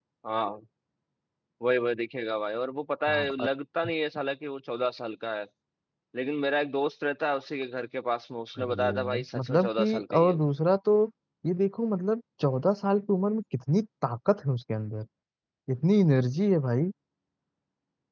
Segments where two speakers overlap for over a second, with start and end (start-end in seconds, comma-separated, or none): 8.6-10.4